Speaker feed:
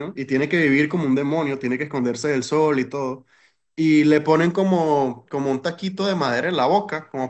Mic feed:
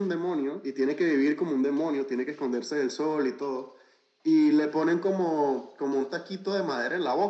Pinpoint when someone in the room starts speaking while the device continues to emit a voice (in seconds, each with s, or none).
none